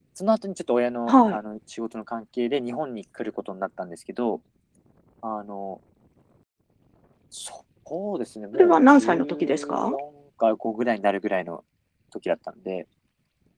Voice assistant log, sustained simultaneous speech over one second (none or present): present